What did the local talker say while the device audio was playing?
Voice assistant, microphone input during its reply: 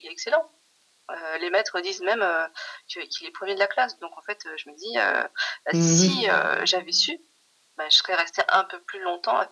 Mmh mh.

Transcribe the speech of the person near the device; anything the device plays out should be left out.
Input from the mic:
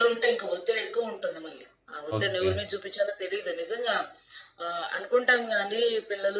ఓకే.

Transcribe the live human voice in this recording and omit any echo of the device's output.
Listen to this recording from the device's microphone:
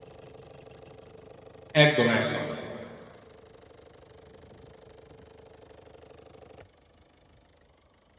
একদম, একদম।

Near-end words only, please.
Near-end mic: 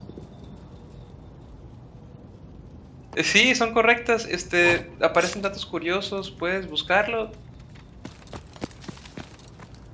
Sí, son correctas. Este, aparecen datos curiosos, puedes buscarlo

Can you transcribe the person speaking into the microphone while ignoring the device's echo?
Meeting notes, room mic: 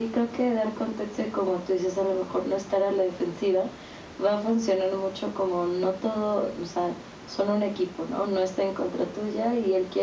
none

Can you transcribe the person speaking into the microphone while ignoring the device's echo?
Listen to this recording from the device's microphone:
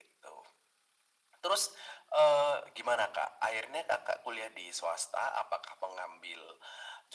none

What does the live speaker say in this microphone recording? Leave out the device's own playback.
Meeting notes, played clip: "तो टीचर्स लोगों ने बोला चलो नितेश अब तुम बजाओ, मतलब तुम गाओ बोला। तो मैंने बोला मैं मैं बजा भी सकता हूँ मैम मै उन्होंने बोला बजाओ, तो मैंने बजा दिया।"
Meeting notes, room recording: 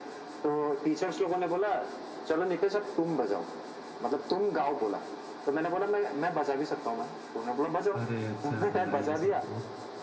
अरे! अच्छा, बधाई हो सबको।

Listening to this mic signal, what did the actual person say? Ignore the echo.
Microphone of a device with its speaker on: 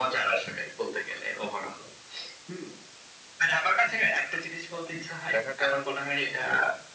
দেখাটা

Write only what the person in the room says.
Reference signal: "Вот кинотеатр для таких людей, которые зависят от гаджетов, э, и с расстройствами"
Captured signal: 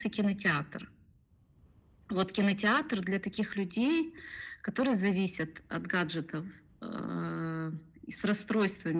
none

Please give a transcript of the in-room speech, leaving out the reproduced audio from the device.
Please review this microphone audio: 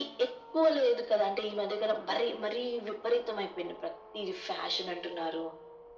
none

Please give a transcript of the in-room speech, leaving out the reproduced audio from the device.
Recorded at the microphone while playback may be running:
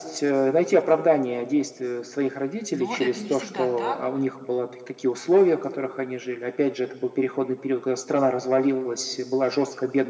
но это не всегда так.

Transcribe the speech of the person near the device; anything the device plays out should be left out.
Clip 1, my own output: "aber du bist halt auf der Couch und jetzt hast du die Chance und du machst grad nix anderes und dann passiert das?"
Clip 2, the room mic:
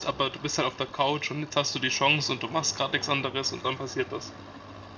none

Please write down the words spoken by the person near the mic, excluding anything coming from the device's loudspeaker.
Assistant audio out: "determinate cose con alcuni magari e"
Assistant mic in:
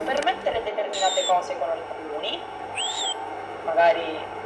none

